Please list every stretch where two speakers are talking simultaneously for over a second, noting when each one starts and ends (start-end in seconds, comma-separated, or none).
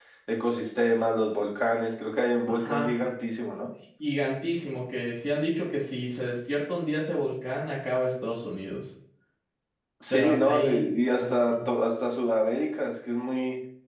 10.1-11.7